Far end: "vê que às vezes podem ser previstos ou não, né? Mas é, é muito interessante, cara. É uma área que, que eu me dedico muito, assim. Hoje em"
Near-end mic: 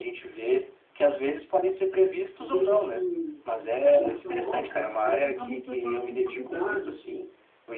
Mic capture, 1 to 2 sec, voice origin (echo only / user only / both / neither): echo only